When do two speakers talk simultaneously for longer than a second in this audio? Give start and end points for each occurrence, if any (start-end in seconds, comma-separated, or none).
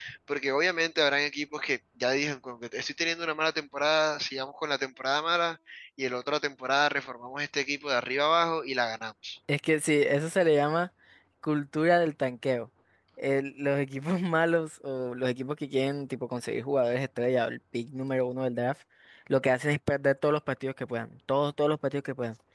none